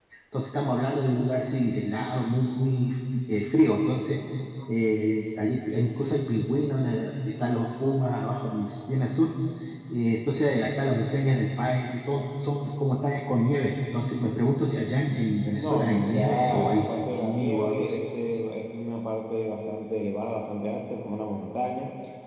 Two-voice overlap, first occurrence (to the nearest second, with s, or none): 16 s